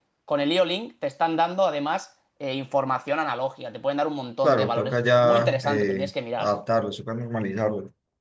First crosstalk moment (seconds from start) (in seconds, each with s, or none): 4.4 s